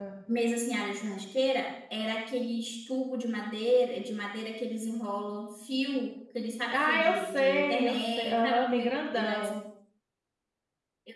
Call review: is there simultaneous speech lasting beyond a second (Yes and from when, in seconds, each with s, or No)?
Yes, from 6.7 s